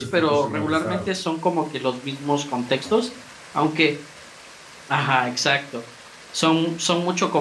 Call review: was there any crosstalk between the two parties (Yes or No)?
Yes